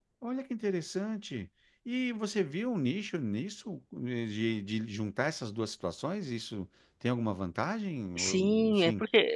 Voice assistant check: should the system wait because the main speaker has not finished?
No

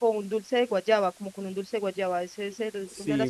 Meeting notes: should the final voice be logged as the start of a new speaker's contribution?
Yes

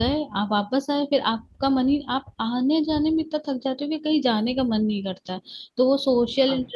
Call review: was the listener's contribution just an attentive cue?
Yes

